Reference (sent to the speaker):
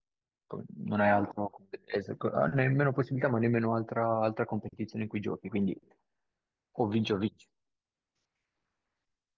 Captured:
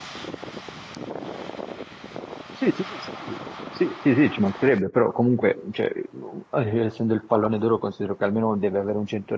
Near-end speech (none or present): present